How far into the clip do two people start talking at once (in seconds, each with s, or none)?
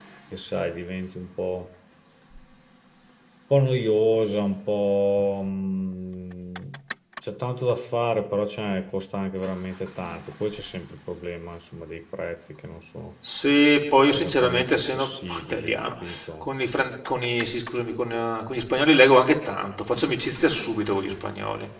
14.1 s